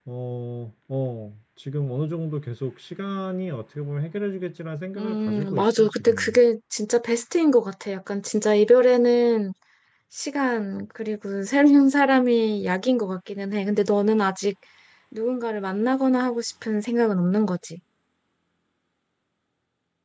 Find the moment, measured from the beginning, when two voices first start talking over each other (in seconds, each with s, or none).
5.0 s